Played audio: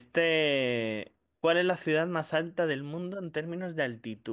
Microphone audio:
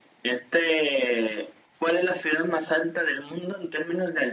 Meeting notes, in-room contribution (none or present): none